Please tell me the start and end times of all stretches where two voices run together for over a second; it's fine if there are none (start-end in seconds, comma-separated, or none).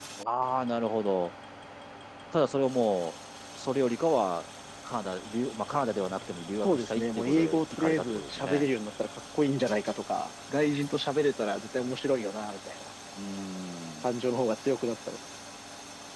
6.6-8.7